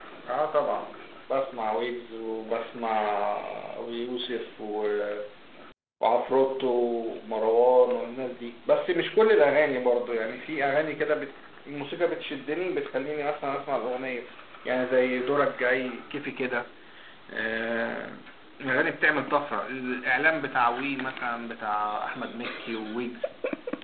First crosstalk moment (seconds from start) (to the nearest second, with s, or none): none